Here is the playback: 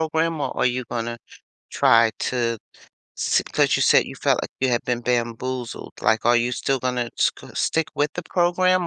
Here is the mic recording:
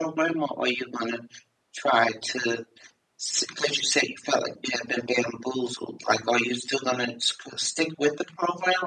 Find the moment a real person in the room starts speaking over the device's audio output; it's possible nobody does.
none

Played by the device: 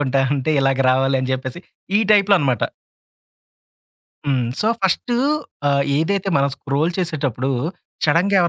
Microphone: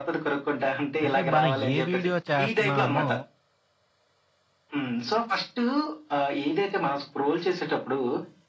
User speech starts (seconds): 1 s

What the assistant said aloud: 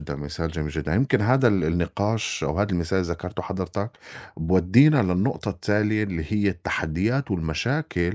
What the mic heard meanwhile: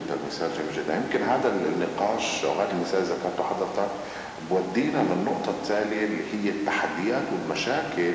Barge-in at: none

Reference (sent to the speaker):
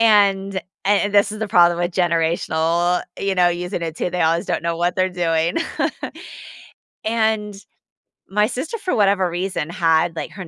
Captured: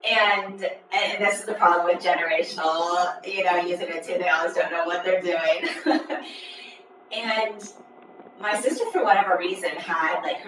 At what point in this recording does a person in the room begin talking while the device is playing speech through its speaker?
none

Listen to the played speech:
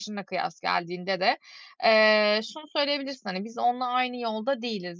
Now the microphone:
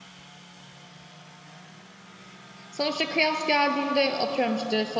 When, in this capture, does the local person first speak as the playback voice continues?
3 s

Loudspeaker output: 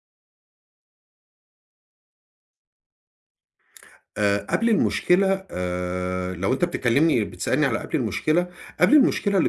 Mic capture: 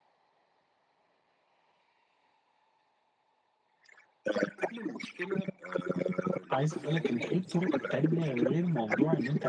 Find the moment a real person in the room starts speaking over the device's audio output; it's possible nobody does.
6 s

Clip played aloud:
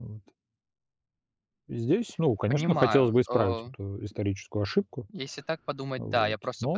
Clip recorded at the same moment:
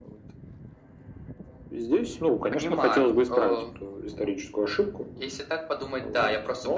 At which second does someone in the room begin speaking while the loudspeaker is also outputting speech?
none

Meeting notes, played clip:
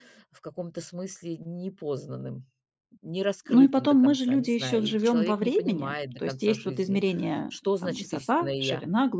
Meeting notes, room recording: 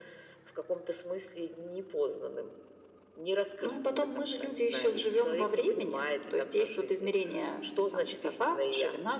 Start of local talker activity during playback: none

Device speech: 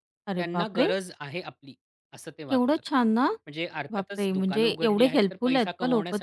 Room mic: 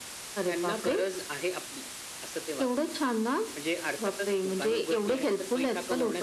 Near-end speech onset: none

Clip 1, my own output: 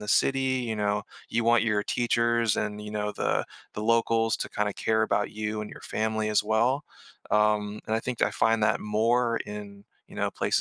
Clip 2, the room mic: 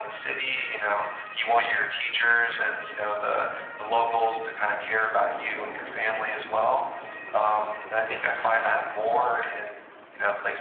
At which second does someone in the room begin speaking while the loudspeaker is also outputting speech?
none

